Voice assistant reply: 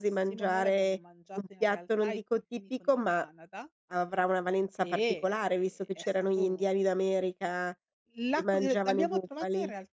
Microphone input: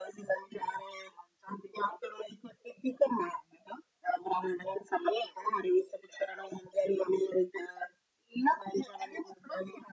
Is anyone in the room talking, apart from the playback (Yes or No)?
No